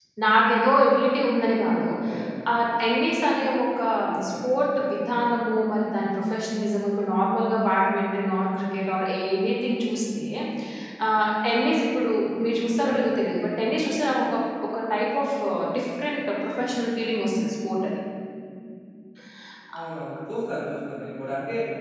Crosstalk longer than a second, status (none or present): none